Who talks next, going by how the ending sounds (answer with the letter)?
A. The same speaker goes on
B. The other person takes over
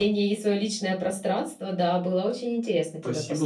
B